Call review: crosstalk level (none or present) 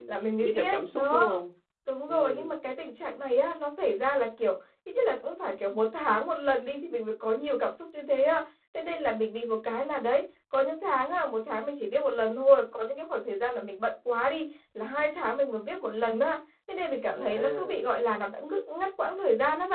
present